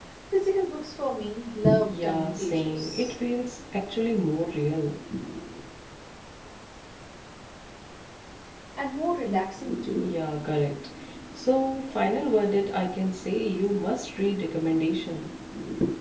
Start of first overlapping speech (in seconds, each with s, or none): 1.9 s